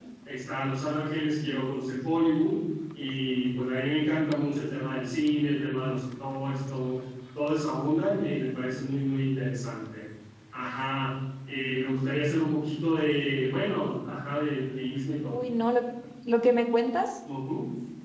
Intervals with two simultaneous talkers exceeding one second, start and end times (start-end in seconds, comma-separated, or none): none